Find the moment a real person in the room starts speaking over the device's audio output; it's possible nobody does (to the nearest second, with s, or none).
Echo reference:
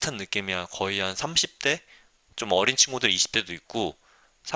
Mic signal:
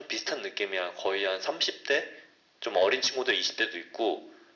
none